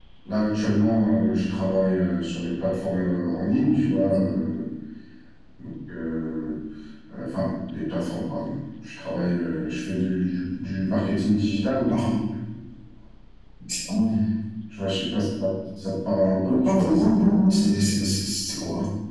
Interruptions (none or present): present